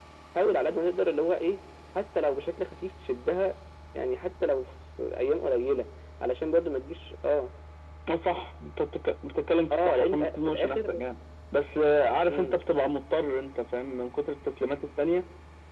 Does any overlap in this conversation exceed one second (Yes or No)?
Yes